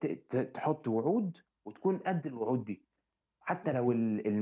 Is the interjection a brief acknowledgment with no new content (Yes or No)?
Yes